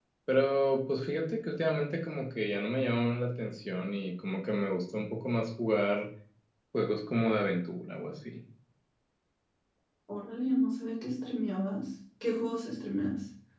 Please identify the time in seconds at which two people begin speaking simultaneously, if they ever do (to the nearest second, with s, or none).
none